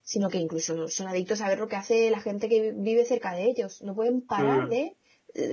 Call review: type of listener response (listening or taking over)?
listening